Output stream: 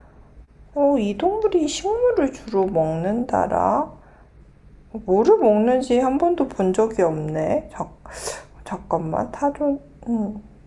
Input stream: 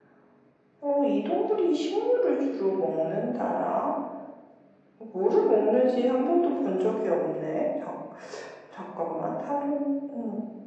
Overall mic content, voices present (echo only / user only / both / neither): echo only